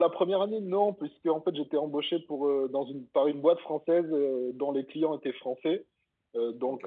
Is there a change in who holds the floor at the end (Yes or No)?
No